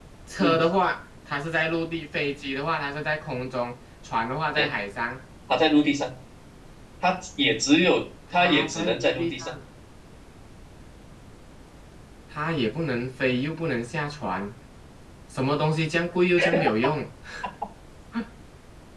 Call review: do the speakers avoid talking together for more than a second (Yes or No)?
No